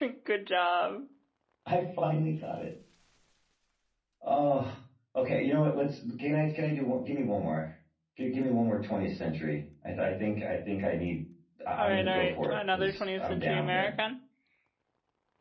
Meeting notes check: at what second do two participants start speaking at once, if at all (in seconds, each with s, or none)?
11.8 s